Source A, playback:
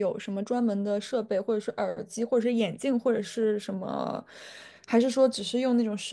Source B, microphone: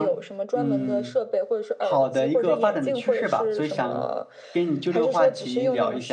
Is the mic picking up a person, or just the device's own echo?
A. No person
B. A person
B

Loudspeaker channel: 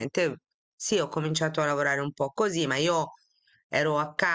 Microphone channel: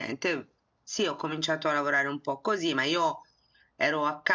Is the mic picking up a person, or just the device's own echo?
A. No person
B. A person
A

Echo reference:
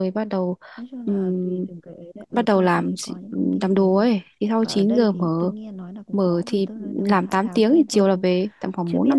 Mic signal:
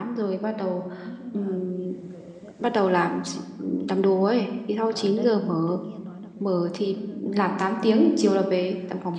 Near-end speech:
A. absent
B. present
A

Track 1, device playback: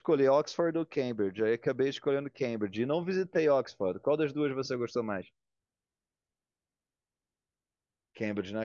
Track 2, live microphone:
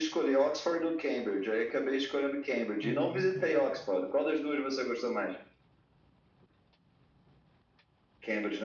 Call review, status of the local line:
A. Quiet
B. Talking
B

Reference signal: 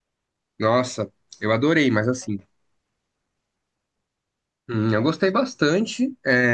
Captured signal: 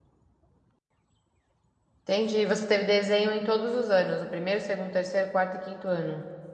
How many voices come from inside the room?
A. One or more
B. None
A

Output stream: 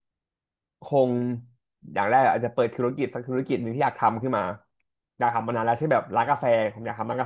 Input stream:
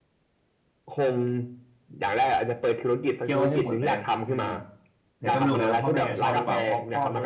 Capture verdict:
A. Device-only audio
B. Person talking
B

